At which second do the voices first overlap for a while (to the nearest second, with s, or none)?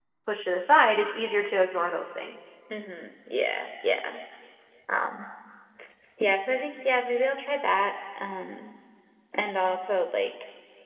none